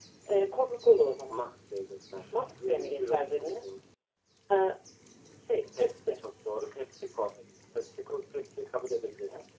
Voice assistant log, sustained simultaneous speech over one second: present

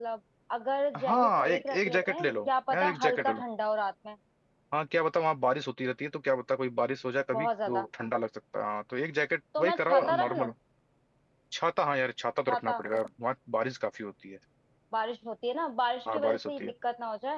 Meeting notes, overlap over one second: present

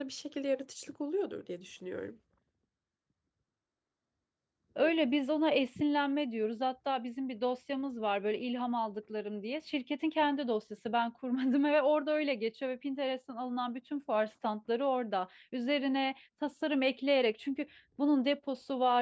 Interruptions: none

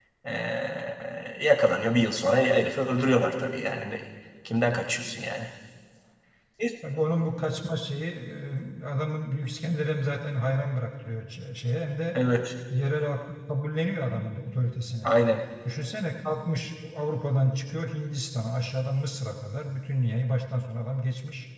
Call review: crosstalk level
none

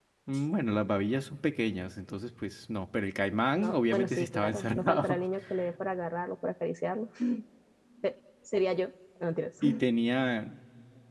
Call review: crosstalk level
present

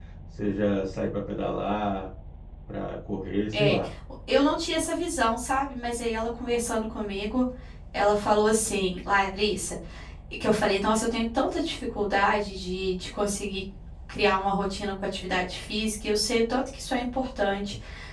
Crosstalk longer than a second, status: none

